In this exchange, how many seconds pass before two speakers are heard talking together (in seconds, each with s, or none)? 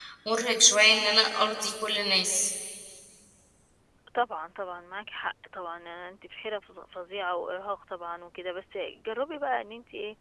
none